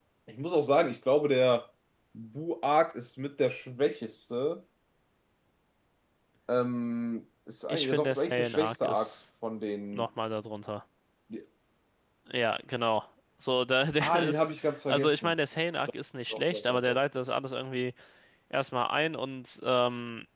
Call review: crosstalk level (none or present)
present